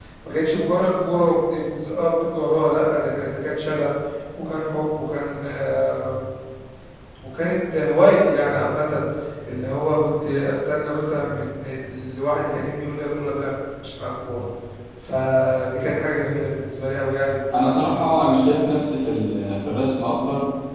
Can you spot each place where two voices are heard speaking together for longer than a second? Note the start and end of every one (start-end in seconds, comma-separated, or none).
17.6-18.8